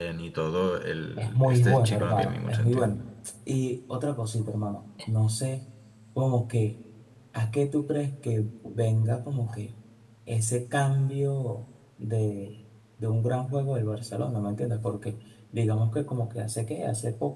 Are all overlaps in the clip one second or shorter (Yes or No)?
No